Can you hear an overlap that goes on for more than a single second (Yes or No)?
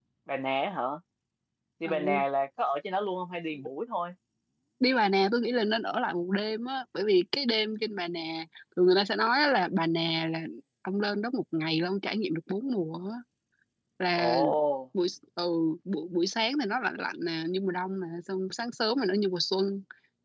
No